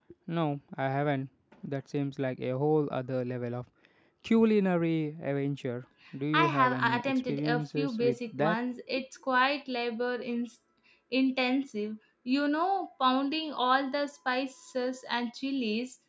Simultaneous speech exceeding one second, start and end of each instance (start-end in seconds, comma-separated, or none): 6.3-8.6